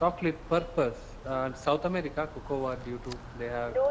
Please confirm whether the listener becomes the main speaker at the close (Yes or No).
Yes